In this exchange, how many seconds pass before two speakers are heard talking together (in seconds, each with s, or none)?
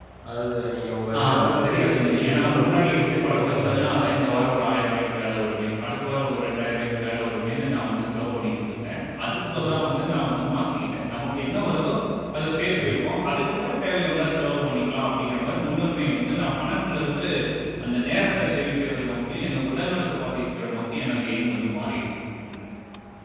1.3 s